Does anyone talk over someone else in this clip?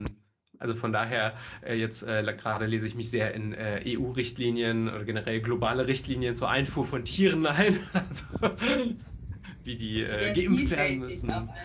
Yes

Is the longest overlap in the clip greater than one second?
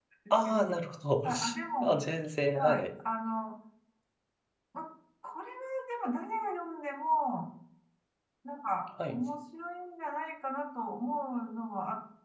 No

